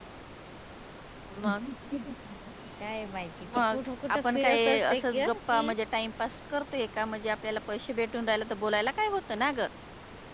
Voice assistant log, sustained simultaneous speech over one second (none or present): present